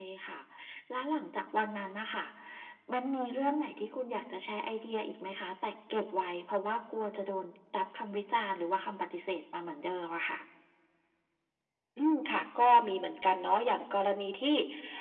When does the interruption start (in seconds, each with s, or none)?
none